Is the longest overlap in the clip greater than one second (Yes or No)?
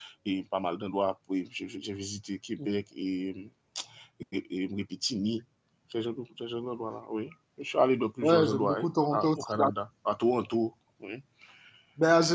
Yes